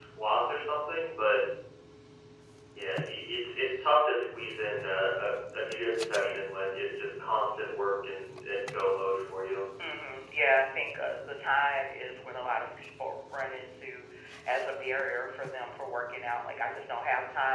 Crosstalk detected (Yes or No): No